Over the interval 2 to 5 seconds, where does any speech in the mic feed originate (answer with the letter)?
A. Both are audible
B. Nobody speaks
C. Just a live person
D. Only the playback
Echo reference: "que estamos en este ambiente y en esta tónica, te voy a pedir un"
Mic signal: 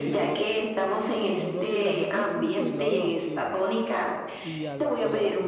A